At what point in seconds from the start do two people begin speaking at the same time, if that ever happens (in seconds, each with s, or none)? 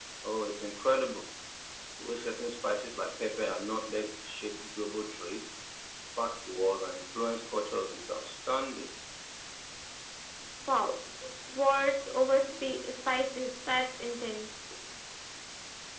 none